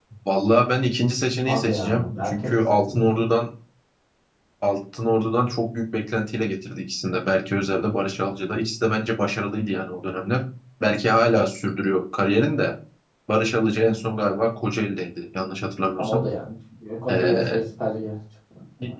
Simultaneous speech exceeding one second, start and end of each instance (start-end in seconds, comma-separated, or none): 1.4-3.1